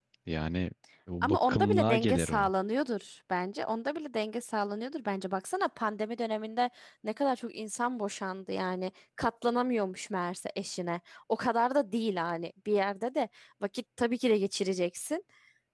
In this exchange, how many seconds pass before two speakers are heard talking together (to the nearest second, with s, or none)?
1 s